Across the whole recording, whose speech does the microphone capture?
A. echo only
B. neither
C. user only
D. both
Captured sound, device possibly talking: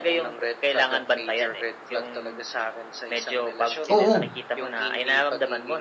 D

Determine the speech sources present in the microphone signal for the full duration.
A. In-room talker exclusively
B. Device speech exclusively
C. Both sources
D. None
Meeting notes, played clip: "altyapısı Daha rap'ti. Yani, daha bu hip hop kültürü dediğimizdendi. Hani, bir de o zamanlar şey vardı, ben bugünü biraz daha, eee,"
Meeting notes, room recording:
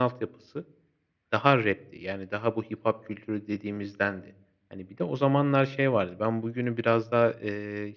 B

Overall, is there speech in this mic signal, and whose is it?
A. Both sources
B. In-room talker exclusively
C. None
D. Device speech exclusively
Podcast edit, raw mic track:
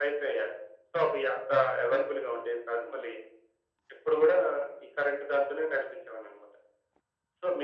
D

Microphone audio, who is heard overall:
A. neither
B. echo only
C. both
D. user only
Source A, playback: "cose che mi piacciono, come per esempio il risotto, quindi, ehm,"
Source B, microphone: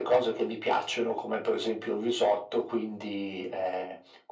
B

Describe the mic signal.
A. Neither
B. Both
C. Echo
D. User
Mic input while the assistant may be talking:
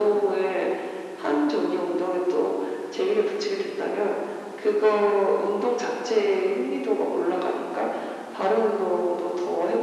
C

